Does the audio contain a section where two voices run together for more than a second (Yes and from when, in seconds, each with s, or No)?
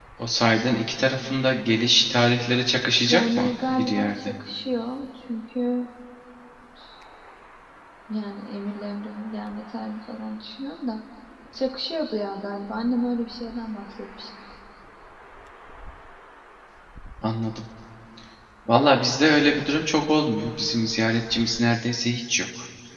Yes, from 3.1 s